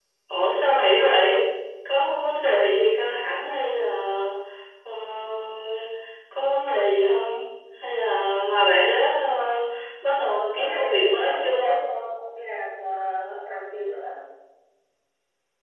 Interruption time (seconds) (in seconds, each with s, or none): 10.2 s